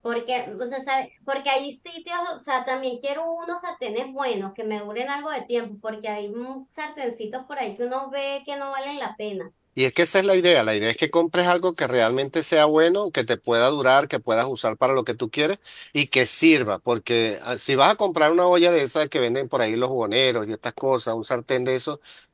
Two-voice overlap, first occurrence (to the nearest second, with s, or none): none